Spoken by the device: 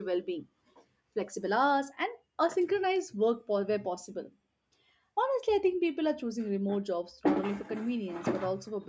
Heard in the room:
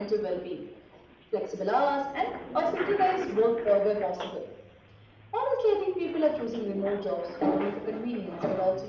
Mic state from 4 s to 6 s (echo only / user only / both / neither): echo only